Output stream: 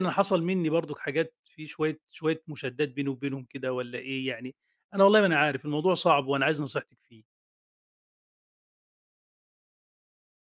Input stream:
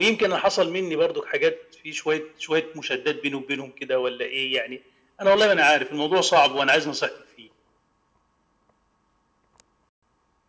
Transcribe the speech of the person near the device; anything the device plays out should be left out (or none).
none